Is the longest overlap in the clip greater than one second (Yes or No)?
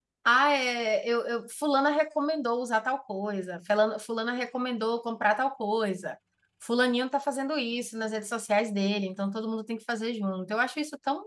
No